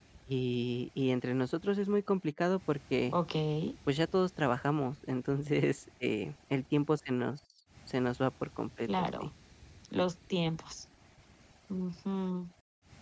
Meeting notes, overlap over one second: none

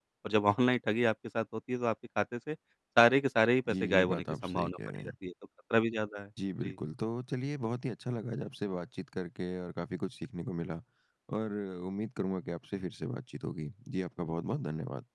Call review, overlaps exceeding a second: present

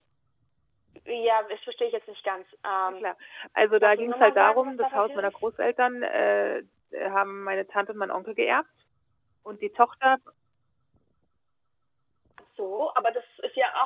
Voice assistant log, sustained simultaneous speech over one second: present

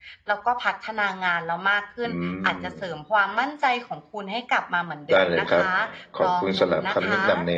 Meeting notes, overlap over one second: present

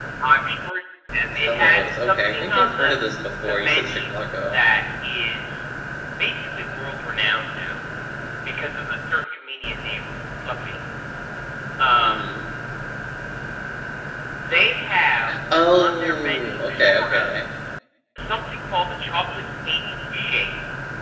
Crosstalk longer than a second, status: present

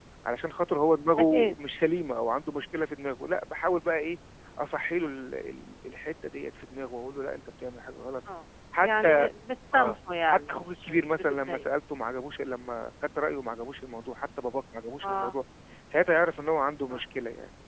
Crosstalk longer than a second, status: present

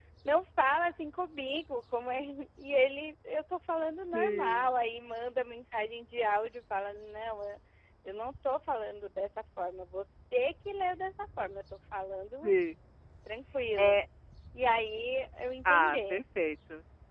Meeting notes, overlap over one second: none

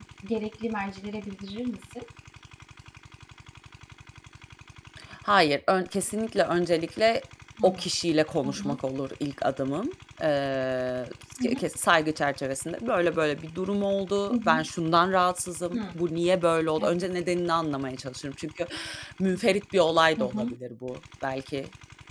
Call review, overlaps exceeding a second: none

